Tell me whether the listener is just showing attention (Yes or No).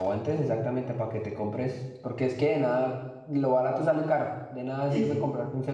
Yes